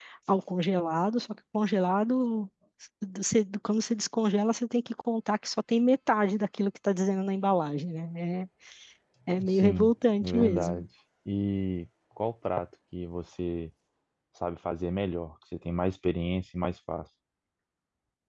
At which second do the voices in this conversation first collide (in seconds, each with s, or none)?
9.4 s